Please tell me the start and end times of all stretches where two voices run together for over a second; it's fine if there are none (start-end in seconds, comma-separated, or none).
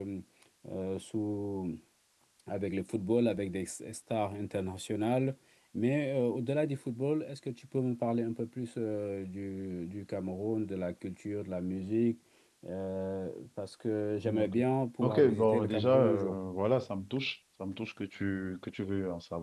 15.0-16.4